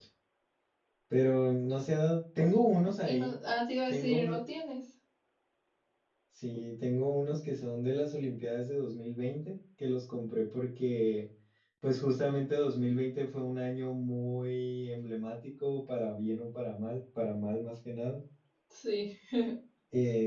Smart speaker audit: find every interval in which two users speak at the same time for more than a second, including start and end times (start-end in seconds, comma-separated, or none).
none